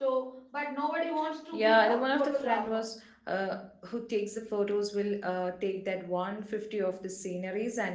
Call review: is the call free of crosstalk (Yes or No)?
No